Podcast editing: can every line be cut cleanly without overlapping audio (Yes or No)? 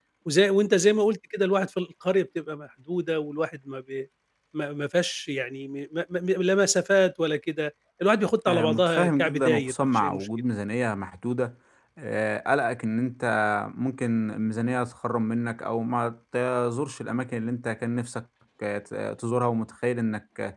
No